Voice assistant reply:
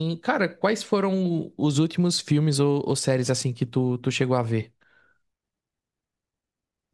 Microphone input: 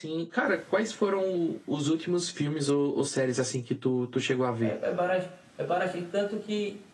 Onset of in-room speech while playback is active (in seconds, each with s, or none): 4.6 s